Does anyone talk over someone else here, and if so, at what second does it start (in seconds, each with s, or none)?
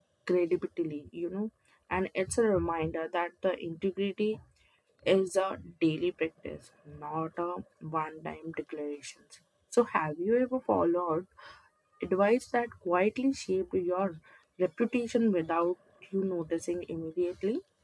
none